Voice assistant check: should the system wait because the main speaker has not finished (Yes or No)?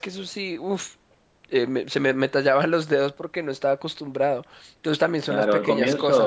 No